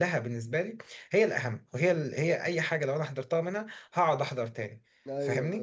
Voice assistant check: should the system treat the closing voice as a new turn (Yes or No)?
Yes